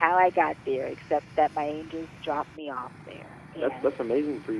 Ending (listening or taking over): taking over